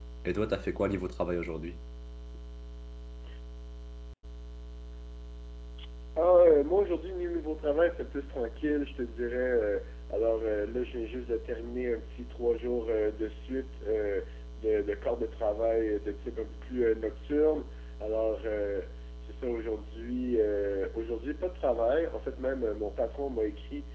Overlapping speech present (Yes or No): No